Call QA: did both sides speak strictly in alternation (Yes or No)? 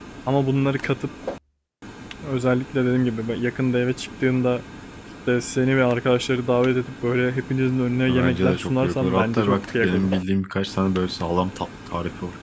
No